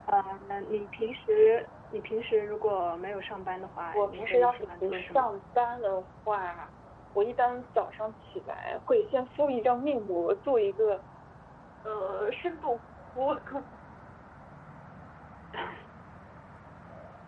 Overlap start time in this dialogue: 4 s

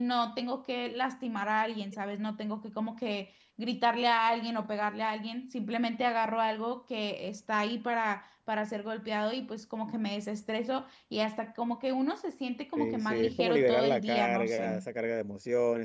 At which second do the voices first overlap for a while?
13 s

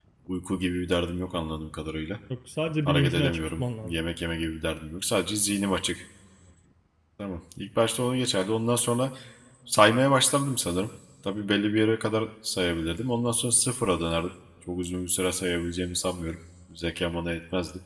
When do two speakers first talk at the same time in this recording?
3 s

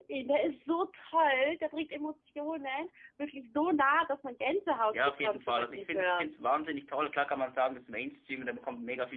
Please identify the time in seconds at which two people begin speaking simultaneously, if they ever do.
5 s

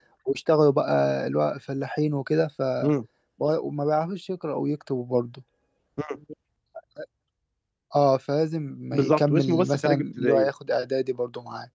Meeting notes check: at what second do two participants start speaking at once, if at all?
9 s

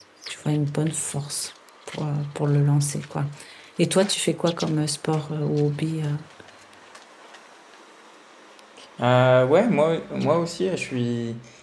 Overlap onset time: none

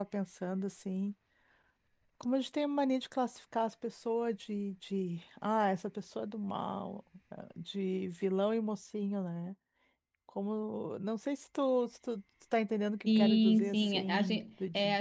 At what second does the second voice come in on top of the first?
13 s

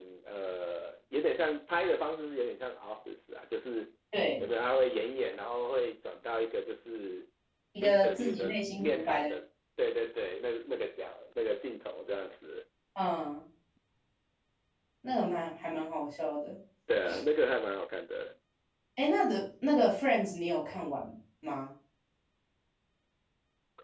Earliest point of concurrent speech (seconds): 8 s

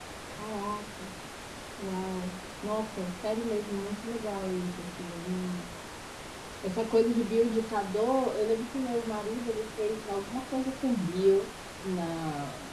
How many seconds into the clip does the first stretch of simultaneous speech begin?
none

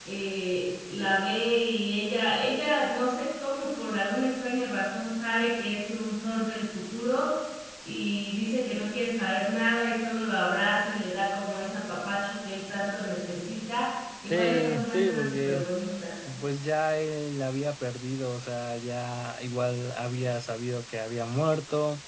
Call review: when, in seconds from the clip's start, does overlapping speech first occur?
14 s

